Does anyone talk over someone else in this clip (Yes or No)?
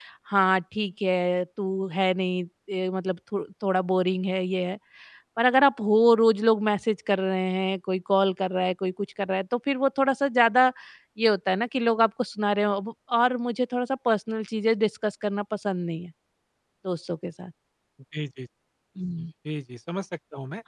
No